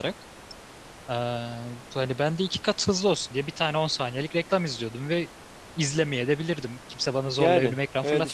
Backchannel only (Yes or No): No